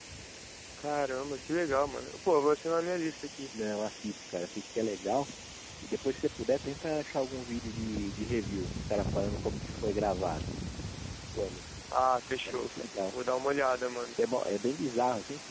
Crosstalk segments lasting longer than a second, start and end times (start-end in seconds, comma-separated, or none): none